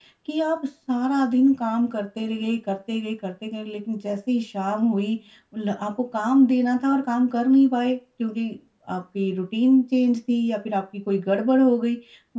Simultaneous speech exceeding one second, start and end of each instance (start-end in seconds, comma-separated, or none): none